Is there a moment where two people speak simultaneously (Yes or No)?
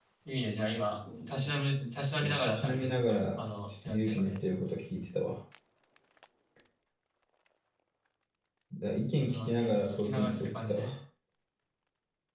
Yes